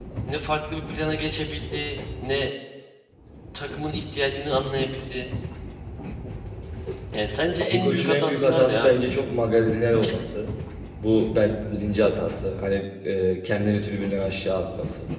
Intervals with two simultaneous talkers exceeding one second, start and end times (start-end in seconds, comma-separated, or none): 7.6-9.2